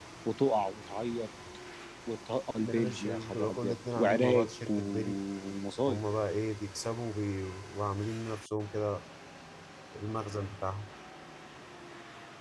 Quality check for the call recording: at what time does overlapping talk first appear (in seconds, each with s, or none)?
2.6 s